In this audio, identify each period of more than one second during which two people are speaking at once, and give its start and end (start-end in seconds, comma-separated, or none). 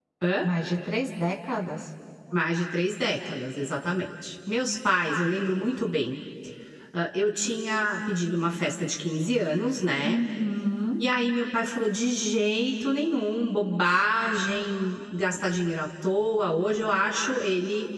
none